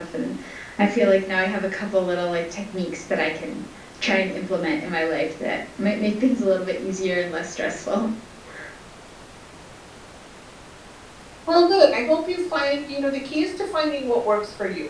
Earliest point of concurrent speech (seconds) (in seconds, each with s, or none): none